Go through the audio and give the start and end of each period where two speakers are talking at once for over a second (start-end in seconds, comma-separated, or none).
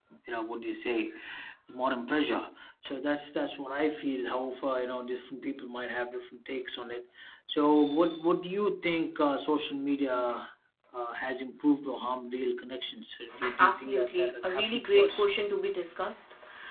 13.6-15.2